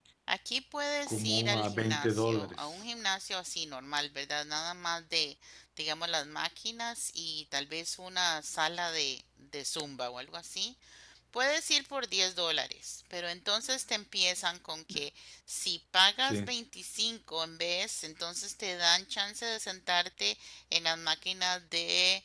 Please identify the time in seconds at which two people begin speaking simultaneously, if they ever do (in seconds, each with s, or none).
1.1 s